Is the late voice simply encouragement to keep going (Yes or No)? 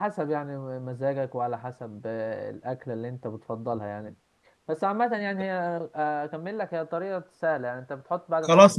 No